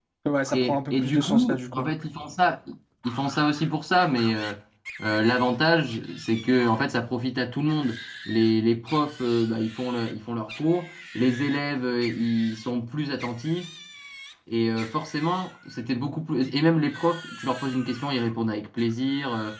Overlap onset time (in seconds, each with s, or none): 0.5 s